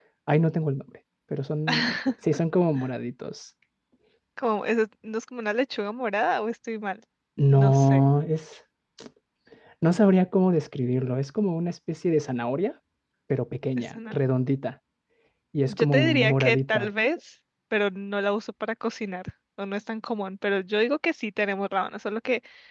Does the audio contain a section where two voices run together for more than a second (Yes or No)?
Yes